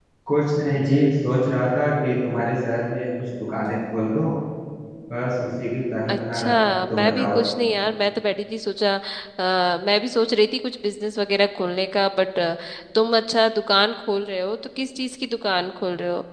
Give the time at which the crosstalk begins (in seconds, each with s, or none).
6.1 s